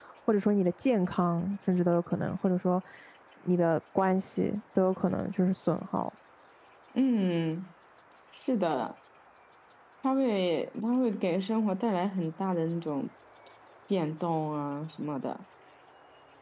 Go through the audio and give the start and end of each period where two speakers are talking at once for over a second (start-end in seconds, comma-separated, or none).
none